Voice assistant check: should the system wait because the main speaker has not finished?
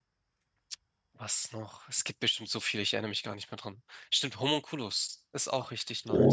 No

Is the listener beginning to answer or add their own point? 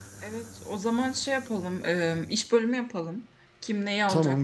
No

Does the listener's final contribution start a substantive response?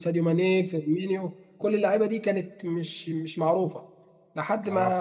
No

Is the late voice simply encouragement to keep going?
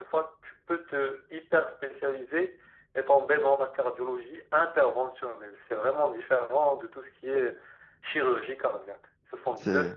Yes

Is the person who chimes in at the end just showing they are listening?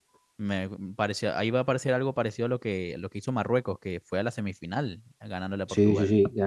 No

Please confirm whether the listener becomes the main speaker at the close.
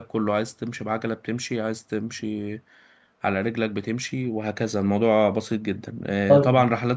No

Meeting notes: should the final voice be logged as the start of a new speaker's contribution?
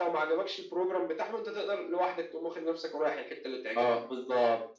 Yes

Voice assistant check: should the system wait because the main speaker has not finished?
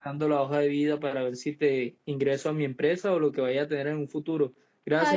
No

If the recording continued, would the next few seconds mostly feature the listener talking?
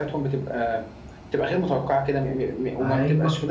No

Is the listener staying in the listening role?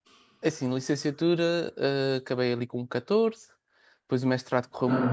Yes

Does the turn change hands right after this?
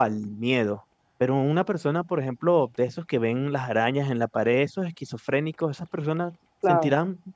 No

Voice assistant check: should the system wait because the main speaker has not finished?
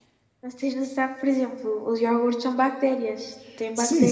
No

